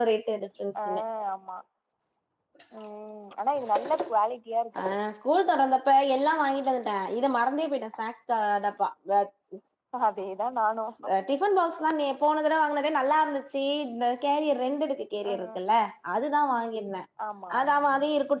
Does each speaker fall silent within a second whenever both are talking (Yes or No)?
Yes